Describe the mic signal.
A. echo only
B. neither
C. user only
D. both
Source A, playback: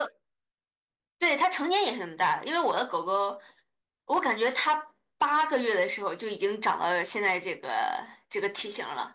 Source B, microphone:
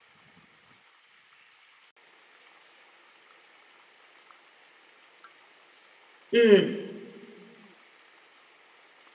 C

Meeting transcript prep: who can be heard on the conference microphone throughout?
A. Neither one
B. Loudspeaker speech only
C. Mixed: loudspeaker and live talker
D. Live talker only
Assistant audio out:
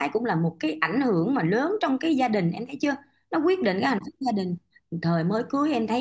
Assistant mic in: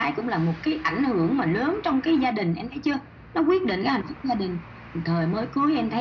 B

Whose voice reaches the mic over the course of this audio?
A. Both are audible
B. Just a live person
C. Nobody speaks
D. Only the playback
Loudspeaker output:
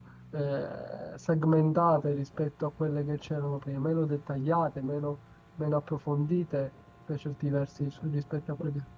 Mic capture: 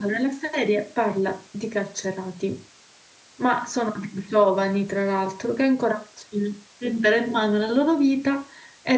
B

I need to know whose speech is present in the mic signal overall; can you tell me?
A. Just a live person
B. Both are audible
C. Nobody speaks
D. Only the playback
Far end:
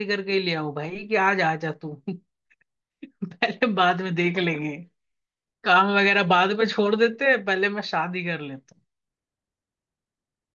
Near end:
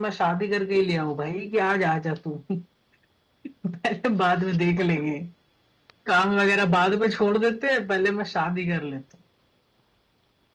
D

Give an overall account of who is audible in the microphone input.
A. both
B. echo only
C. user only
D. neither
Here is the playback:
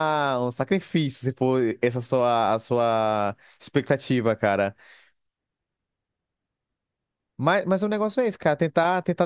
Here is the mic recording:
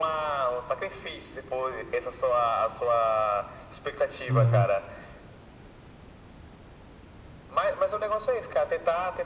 A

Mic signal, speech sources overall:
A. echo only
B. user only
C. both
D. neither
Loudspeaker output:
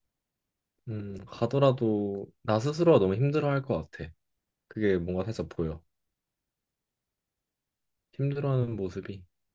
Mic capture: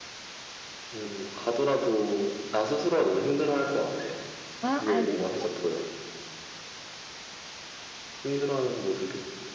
C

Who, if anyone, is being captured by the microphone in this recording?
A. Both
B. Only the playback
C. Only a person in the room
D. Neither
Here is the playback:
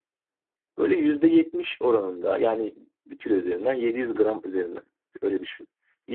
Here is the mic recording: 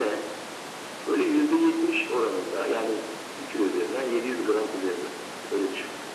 B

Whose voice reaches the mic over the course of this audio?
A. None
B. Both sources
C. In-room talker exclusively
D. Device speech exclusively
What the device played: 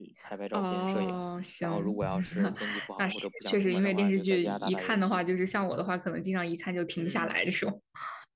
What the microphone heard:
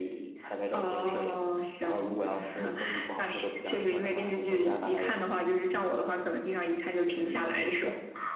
D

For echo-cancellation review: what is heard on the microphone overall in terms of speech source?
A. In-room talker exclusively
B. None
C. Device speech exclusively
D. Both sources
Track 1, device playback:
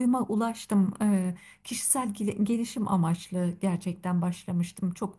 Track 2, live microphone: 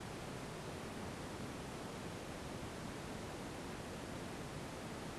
B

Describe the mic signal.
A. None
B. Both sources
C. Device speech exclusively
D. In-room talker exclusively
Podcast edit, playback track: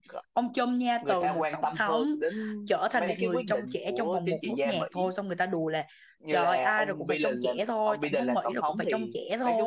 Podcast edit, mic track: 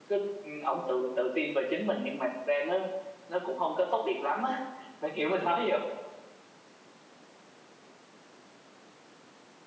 D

